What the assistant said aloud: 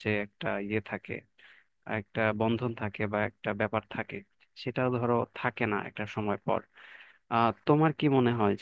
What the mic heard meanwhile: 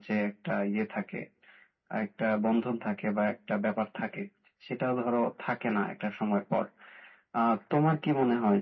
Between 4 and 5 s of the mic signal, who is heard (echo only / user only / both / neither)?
echo only